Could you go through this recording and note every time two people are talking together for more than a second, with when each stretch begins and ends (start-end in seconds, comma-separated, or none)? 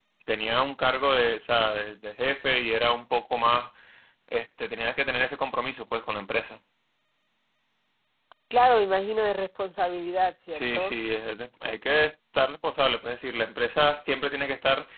none